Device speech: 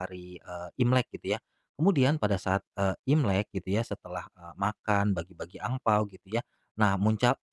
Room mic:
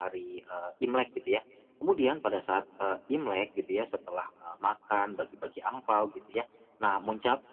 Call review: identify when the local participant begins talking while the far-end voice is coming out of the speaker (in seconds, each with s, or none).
none